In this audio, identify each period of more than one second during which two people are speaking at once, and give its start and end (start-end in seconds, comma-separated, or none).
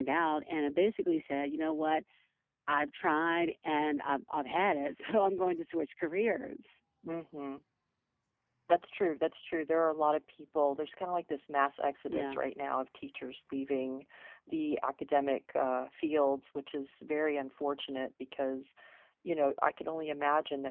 none